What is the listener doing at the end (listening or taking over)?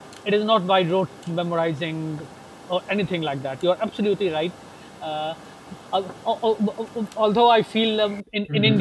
listening